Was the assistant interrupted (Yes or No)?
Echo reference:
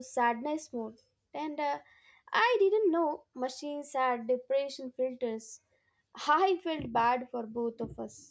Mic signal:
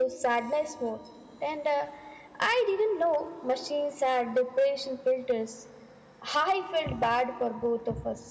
No